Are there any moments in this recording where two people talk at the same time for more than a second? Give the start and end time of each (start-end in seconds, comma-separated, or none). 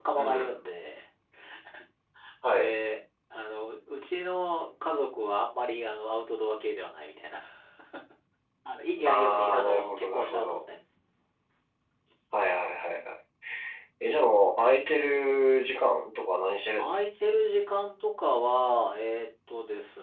9.0-10.6